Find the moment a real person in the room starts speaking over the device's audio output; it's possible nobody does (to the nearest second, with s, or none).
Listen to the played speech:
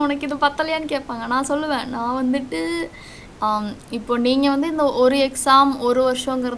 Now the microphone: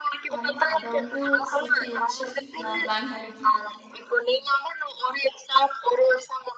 0 s